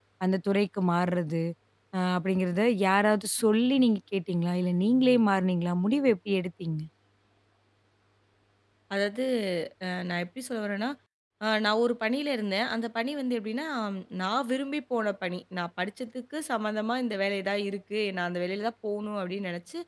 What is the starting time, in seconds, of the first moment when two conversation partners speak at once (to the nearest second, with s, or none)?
none